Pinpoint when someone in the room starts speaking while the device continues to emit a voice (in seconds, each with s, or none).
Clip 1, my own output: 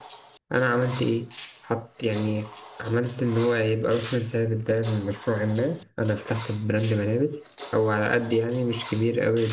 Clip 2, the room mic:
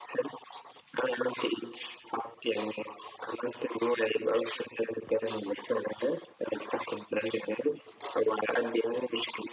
none